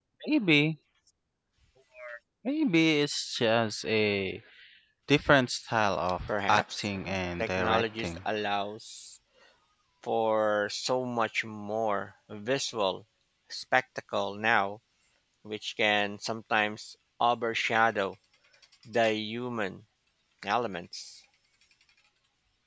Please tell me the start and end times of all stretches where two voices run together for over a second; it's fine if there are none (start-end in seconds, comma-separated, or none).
6.5-8.2